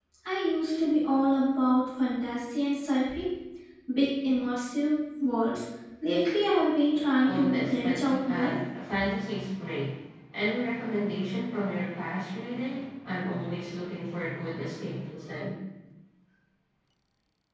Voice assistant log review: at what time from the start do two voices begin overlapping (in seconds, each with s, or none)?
7.2 s